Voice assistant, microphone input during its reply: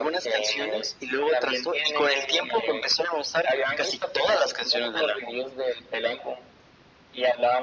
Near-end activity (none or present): none